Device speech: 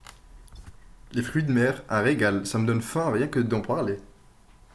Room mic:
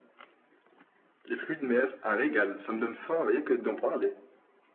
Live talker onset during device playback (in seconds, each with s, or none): none